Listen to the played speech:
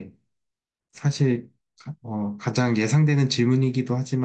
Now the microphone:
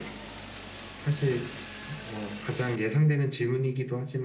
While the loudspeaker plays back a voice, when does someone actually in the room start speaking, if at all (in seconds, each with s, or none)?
none